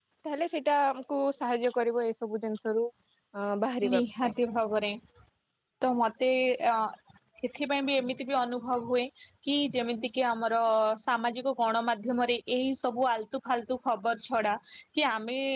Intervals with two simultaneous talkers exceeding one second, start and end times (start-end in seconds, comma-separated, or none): none